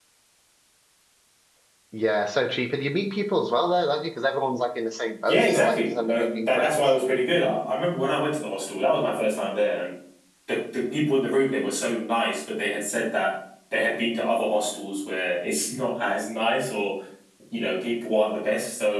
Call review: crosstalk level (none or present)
present